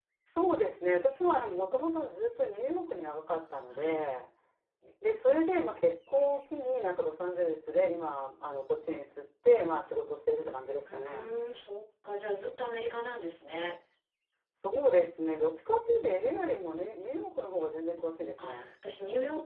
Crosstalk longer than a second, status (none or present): none